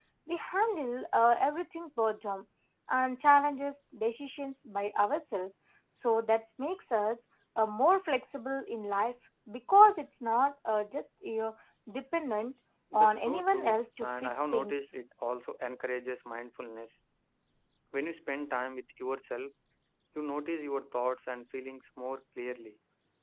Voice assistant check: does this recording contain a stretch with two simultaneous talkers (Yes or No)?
Yes